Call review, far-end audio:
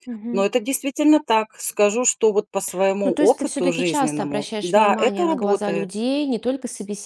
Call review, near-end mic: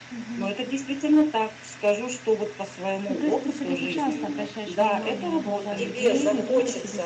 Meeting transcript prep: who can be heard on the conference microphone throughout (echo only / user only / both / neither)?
both